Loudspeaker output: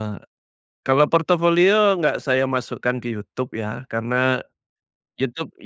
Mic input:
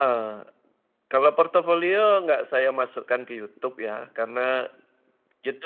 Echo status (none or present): present